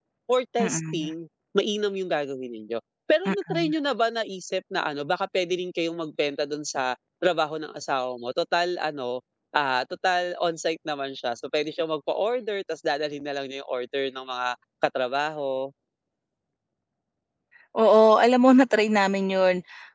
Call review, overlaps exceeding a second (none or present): none